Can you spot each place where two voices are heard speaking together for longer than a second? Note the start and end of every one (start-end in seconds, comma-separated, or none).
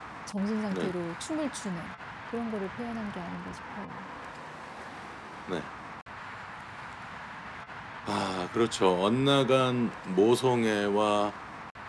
none